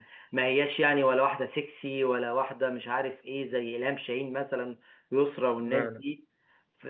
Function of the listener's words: listening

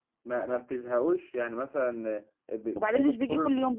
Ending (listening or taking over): taking over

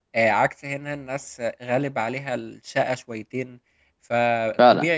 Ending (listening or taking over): listening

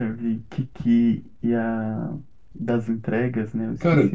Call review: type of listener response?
taking over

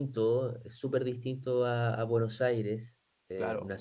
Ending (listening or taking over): listening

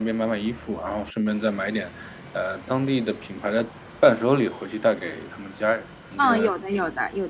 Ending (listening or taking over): taking over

